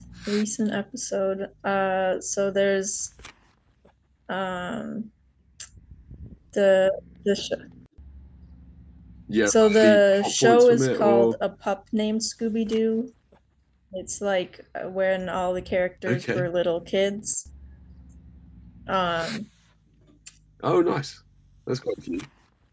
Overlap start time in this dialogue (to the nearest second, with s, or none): 9 s